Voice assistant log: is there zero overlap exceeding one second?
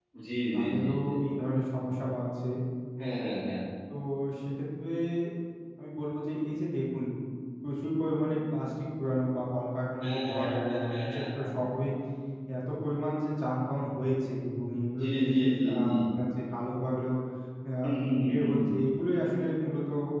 No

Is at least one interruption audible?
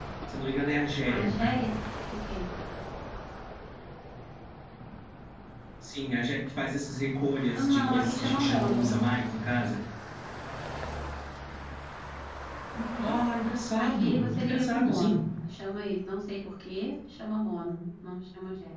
Yes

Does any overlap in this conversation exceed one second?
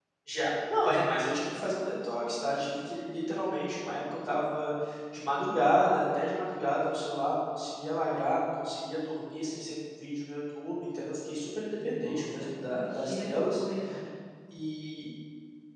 Yes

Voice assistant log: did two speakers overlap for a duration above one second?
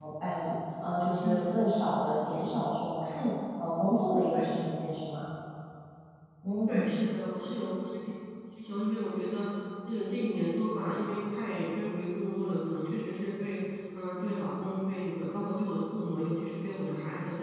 No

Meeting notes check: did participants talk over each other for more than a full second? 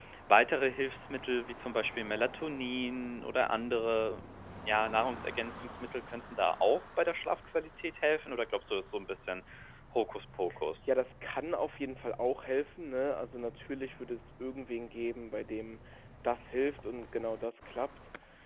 No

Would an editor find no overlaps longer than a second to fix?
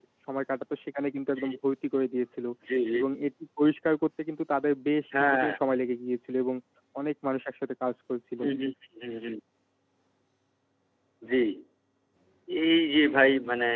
Yes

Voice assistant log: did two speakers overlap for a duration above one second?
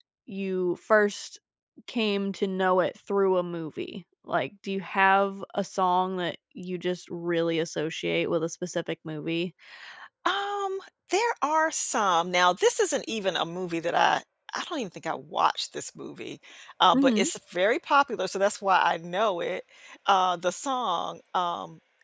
No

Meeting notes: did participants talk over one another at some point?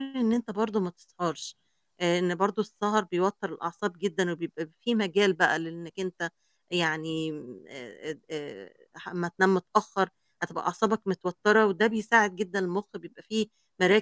No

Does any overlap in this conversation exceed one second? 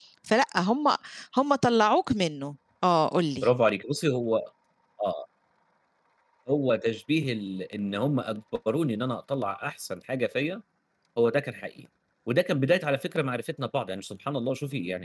No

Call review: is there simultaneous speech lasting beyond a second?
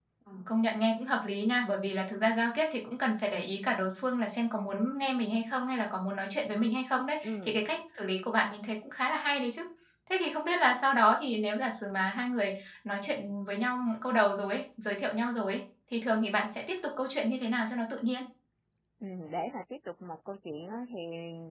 No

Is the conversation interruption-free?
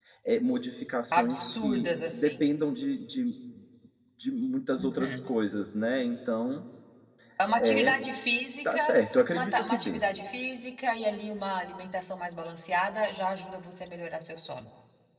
No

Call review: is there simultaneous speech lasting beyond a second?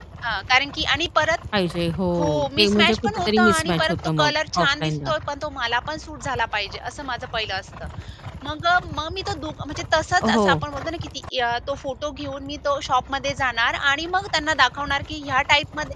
Yes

